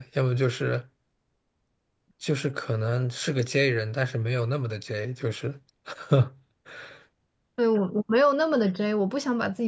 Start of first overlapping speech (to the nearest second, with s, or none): none